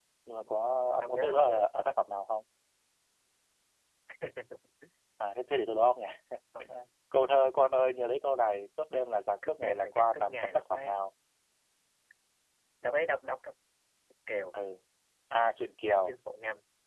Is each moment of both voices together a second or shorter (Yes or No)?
No